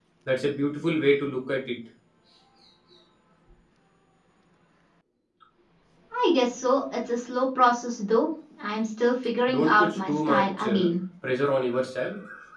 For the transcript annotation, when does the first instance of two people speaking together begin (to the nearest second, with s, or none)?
9 s